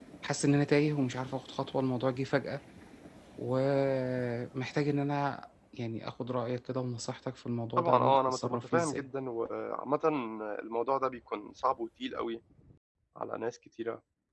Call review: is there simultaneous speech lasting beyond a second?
Yes, from 7.8 s

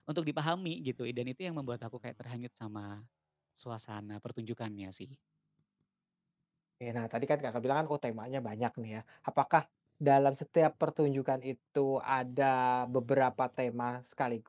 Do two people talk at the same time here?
No

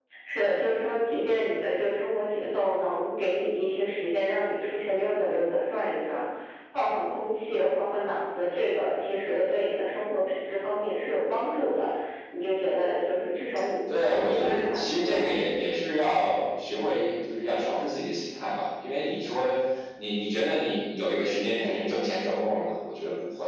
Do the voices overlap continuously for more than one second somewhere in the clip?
Yes, from 13.9 s

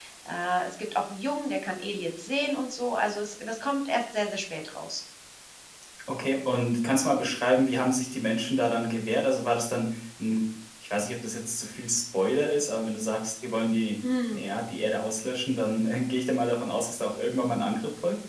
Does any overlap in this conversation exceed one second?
No

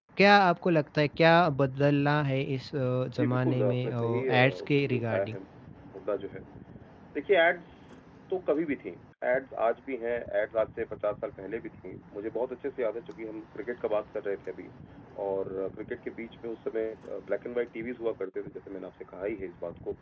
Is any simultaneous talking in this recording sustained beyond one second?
Yes, from 3.2 s

